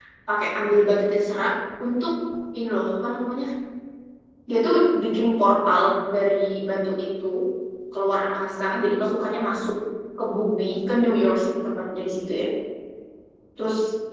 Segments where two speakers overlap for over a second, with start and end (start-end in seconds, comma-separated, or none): none